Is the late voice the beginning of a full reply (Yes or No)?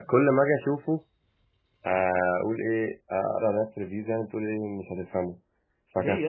Yes